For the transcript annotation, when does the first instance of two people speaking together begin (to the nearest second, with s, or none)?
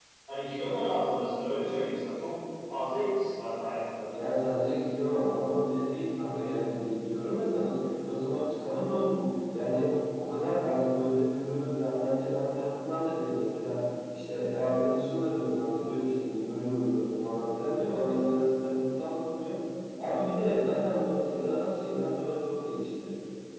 none